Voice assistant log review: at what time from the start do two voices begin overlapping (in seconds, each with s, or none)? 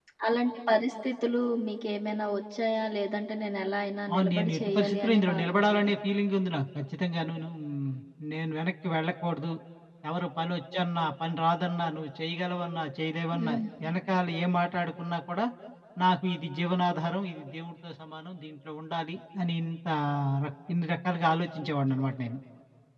4.1 s